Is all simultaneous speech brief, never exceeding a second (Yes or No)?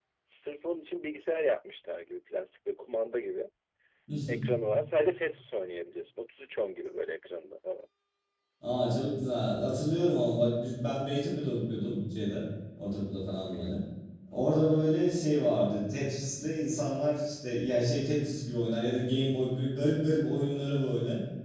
Yes